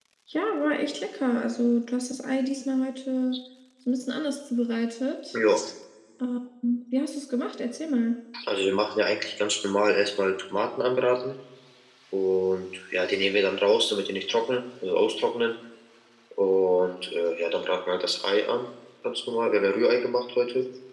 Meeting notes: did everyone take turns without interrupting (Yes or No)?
Yes